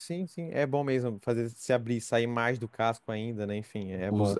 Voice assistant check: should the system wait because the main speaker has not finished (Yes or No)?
No